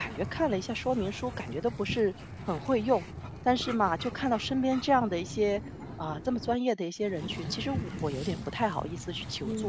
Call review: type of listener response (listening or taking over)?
taking over